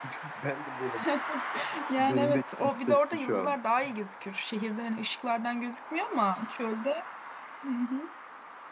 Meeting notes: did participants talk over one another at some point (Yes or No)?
Yes